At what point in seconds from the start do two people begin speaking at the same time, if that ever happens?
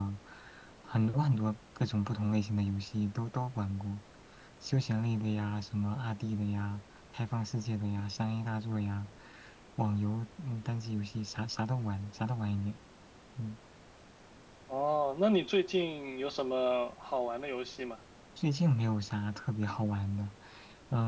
none

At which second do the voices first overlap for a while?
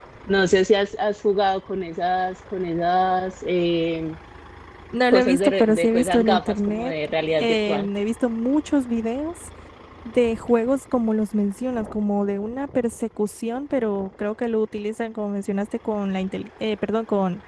5.1 s

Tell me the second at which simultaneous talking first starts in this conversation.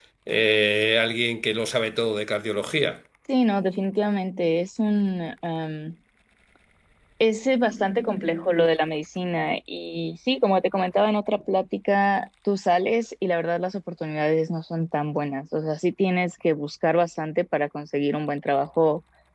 none

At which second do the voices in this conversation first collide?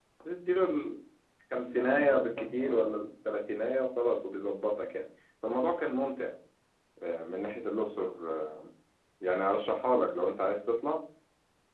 1.6 s

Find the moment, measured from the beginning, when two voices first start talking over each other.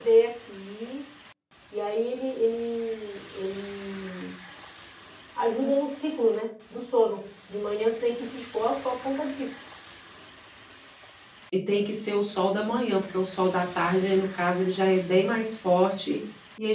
none

